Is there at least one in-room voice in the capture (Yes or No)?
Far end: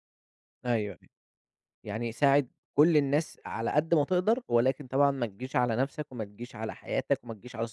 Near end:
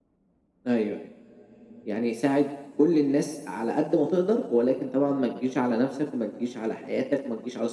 No